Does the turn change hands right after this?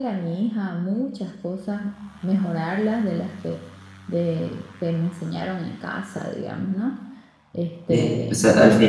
Yes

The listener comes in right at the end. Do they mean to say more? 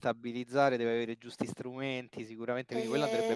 Yes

